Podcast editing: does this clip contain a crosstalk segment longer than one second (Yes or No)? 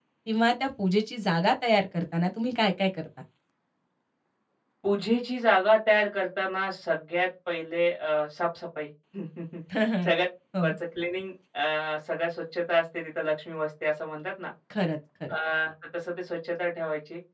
No